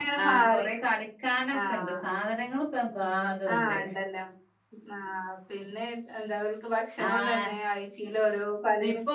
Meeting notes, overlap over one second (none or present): none